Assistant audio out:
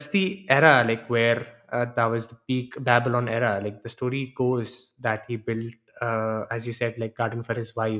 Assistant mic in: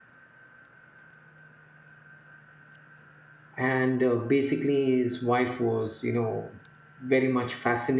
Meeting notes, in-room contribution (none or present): present